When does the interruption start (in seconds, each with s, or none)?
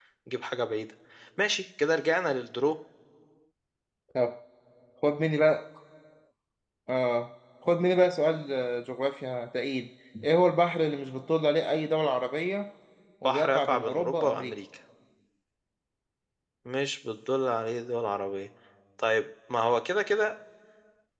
13.2 s